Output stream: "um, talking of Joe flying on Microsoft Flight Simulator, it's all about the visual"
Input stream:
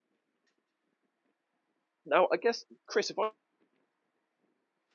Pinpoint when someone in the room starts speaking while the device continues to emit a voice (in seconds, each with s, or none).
2.0 s